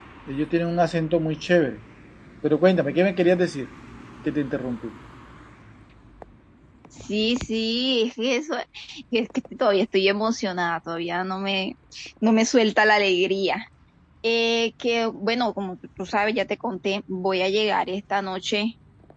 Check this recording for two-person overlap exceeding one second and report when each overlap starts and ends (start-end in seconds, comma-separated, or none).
none